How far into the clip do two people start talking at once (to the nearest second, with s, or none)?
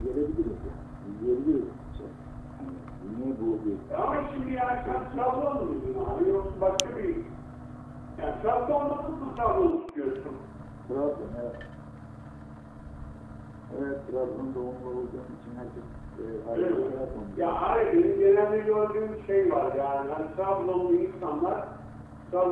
4 s